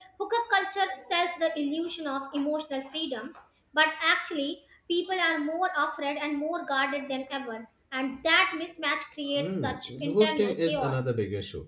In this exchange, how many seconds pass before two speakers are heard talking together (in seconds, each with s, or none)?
9.3 s